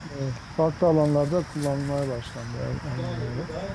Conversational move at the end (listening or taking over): taking over